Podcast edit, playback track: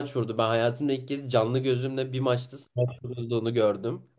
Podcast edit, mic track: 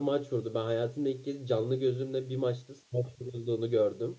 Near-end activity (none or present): none